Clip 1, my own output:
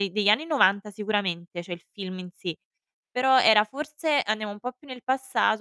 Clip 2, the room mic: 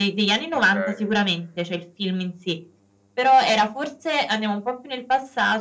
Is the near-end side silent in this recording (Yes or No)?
No